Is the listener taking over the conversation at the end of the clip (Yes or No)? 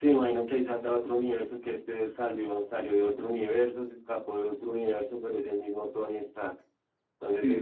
No